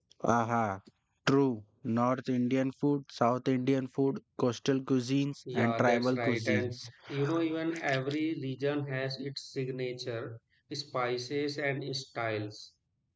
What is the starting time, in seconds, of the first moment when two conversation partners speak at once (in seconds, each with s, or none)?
5.5 s